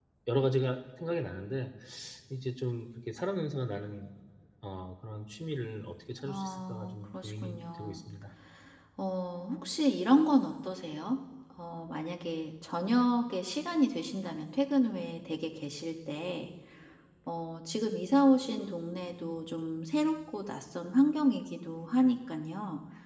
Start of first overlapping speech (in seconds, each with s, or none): 6.2 s